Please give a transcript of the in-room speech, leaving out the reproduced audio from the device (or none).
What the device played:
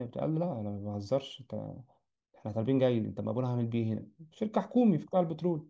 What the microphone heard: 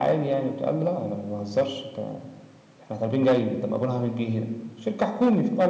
none